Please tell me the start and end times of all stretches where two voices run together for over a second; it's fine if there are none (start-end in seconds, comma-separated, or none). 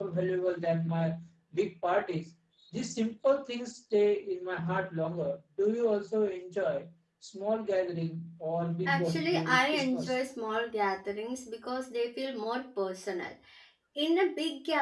8.8-10.2